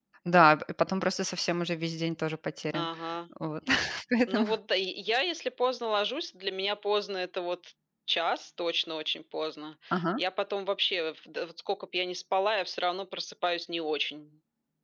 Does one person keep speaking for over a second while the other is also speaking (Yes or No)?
No